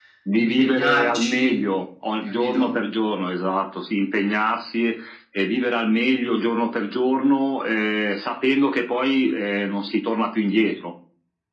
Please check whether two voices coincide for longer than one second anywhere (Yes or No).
Yes